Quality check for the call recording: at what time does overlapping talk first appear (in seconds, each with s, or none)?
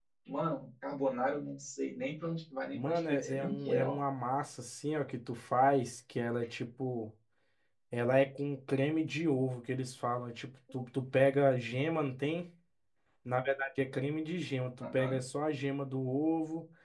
2.7 s